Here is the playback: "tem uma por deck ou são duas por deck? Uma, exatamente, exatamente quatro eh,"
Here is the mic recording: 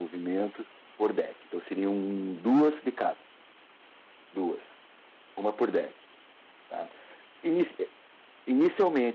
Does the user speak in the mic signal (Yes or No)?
Yes